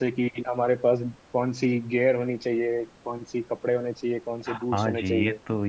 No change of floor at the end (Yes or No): No